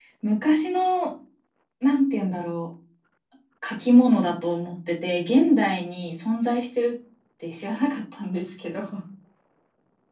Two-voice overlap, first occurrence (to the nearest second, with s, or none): none